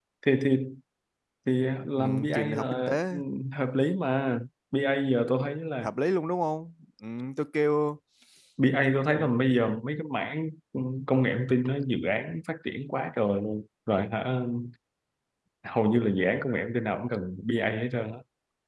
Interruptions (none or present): present